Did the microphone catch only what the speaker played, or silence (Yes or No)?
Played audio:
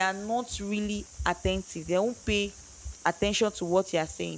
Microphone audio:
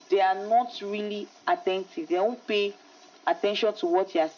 Yes